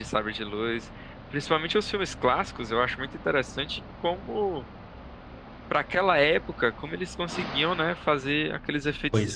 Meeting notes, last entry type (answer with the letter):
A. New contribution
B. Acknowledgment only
B